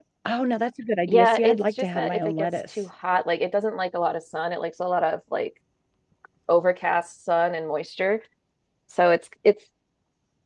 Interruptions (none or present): present